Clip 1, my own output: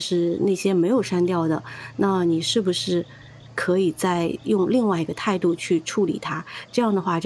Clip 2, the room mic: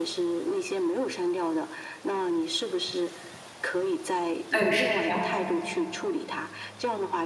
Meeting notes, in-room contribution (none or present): present